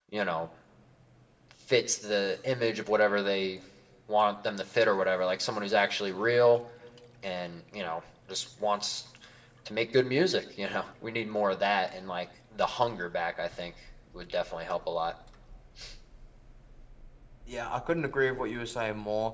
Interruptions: none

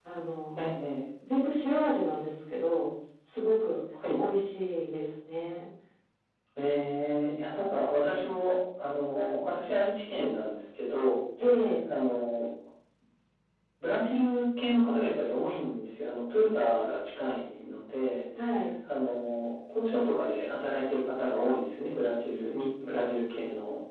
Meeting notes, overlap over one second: none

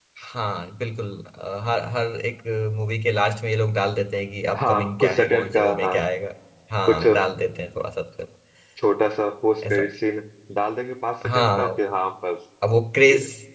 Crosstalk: present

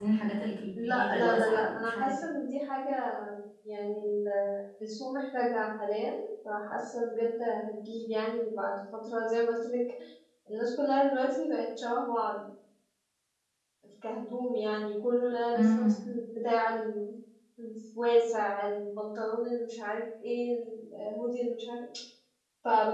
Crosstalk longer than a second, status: present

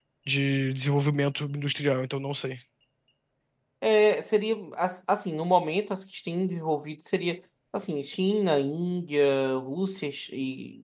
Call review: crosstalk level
none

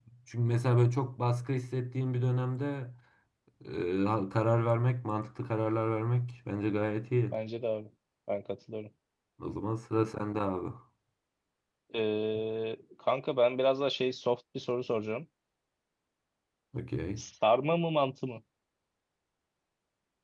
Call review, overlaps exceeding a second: none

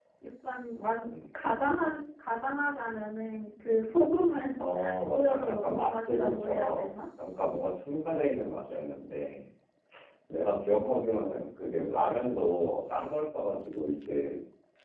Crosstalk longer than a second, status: present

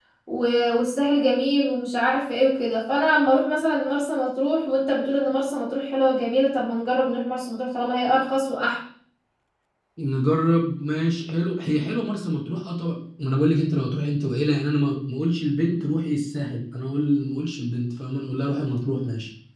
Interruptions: none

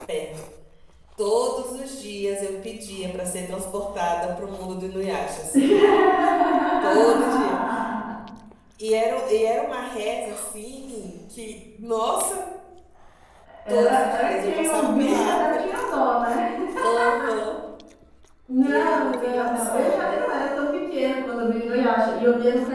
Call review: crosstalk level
present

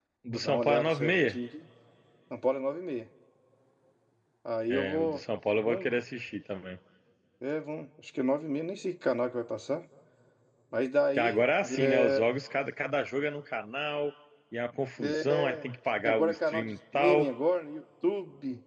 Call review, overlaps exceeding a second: present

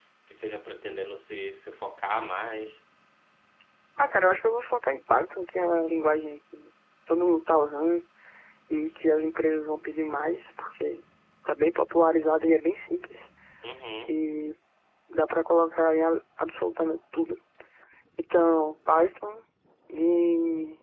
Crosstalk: none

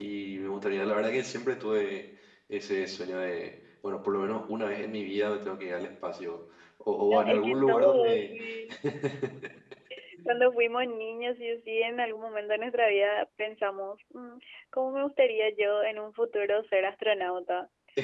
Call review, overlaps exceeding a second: present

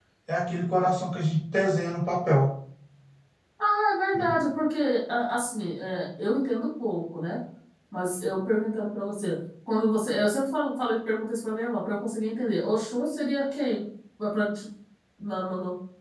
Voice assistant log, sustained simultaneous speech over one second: none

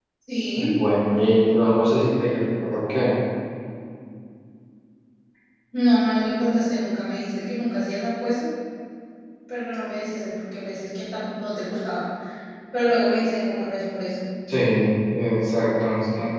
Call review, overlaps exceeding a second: none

